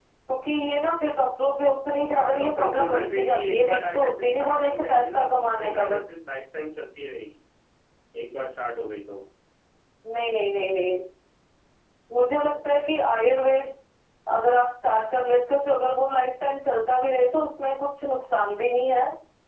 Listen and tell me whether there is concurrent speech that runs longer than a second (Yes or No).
Yes